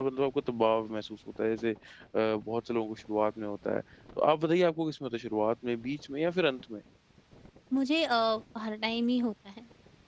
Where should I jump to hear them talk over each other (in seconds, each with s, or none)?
none